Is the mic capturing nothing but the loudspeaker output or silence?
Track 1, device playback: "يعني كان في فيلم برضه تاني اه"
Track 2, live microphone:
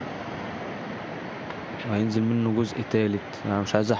No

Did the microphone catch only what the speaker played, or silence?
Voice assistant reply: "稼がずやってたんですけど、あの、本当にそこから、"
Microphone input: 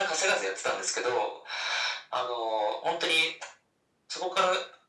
Yes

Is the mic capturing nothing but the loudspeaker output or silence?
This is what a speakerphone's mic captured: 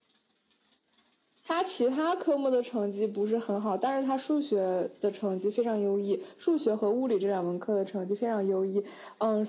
Yes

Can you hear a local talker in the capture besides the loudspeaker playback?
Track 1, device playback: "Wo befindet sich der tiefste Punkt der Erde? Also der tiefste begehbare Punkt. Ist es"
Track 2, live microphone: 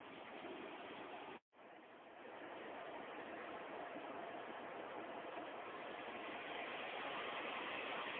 No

